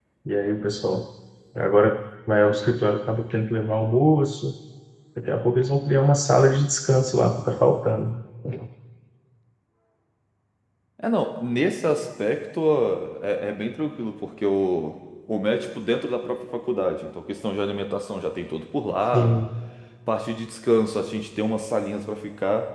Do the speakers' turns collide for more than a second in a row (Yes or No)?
No